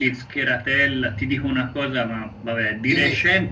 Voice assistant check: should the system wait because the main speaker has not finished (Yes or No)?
Yes